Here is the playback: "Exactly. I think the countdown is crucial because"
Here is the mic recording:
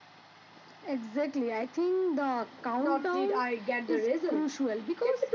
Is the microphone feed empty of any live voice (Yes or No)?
No